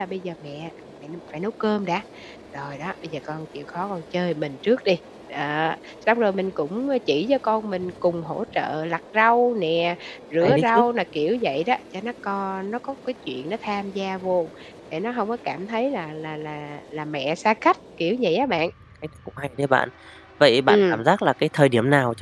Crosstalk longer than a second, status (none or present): none